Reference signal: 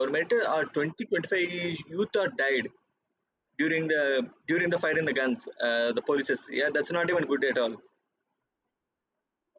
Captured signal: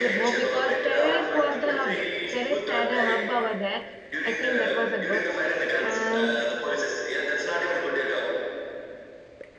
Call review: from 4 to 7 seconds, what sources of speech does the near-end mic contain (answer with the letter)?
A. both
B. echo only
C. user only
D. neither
A